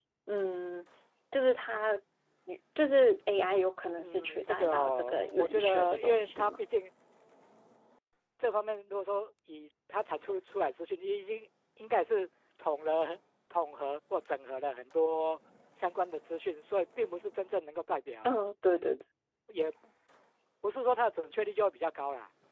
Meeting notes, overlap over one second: present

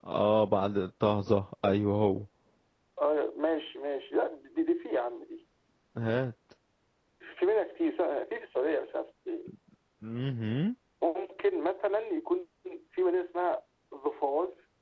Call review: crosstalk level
none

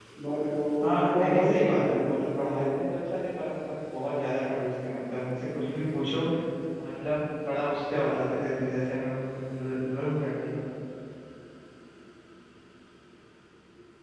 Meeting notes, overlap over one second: present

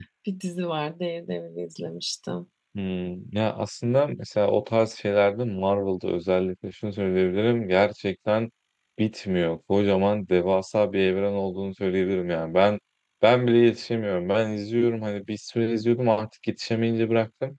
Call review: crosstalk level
none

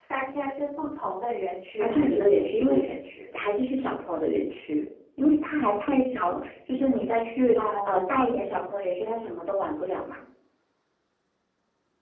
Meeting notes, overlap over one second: present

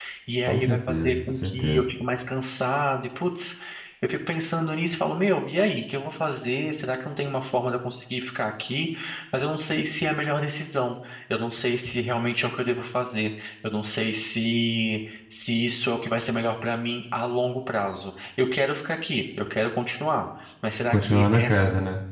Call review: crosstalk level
present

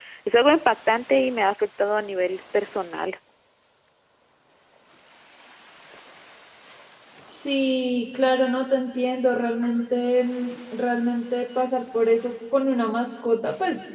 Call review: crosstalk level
none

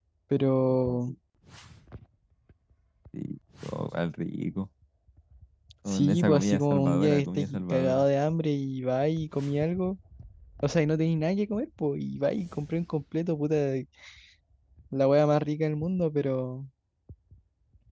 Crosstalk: present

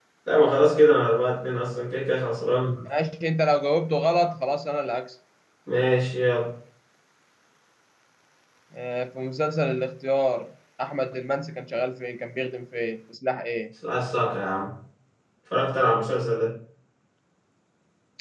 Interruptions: none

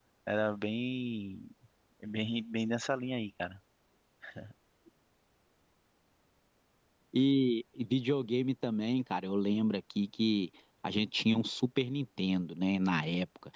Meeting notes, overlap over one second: none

